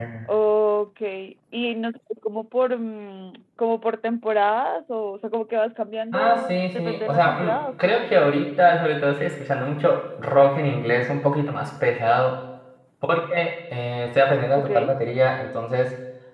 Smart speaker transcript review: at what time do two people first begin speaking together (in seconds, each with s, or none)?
6.1 s